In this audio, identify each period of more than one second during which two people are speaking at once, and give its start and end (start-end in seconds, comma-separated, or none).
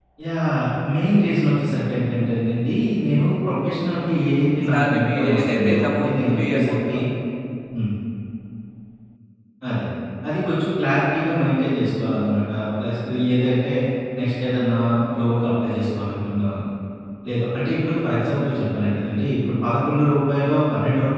4.7-7.0